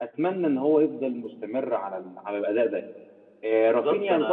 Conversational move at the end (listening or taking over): taking over